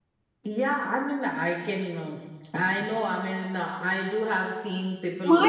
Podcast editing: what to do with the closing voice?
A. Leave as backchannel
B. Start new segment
B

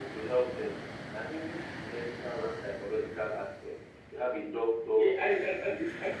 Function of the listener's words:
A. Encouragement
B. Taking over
B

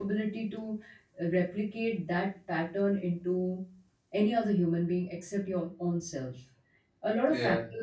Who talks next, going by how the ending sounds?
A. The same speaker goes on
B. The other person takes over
A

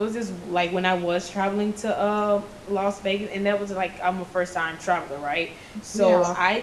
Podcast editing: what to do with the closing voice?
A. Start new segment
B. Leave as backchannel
B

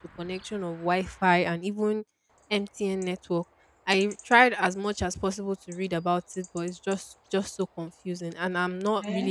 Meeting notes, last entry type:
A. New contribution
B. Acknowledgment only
A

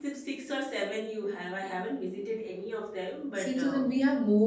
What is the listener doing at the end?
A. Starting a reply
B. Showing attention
A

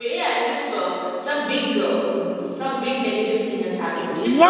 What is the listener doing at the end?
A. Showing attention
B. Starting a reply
B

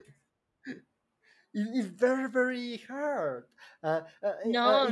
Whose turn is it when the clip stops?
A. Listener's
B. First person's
B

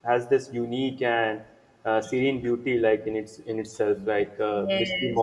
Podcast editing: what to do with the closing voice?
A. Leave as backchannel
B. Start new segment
B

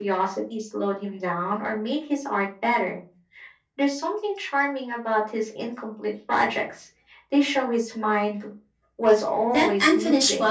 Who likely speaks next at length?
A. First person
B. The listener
B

